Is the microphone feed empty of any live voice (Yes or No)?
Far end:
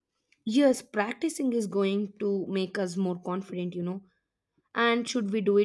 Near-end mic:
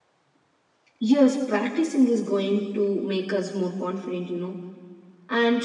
Yes